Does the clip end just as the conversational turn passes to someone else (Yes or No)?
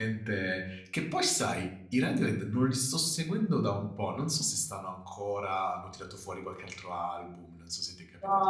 Yes